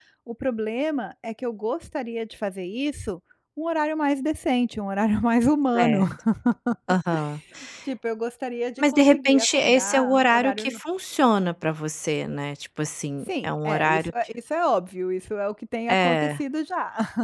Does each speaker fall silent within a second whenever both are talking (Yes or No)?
No